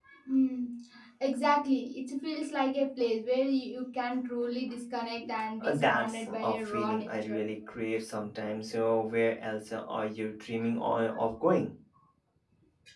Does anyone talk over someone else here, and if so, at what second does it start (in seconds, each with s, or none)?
5.6 s